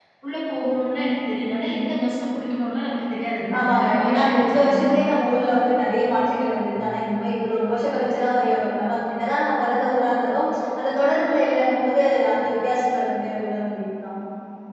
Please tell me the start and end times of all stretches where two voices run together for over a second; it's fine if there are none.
3.6-4.8

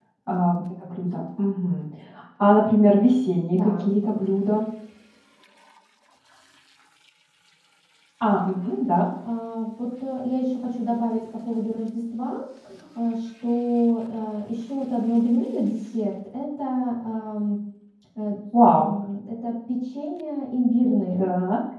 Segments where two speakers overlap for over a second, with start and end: none

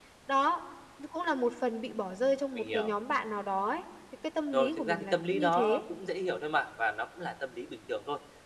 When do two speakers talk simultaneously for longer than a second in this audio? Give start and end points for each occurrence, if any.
4.5-5.8

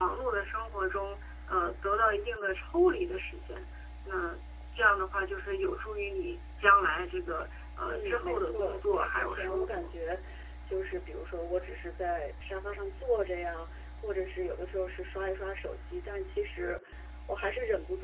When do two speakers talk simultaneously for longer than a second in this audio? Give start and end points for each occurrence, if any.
7.8-9.9

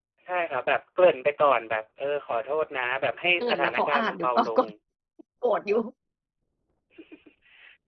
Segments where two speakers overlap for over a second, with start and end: 3.4-4.6

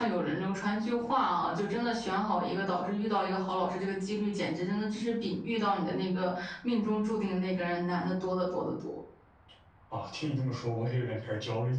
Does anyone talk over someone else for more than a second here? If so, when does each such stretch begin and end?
none

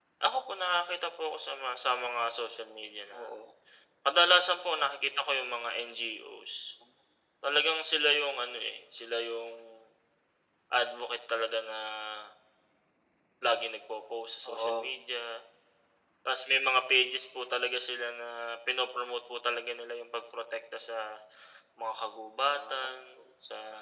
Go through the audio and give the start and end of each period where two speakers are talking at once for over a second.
none

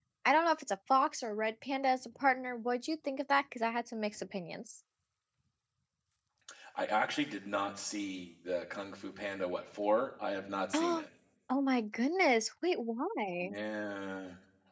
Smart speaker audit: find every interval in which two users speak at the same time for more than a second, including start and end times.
none

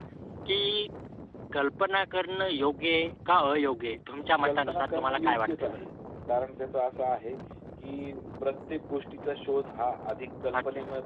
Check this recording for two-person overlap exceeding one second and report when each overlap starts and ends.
4.4-5.8

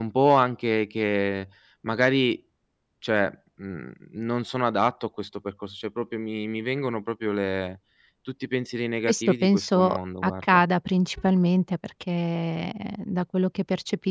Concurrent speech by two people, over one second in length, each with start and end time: 9.1-10.6

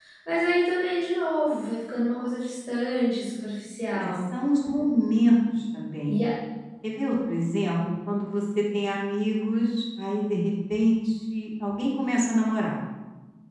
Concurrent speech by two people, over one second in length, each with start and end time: none

